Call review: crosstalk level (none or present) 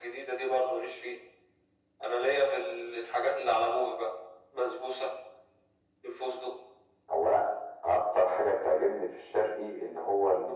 none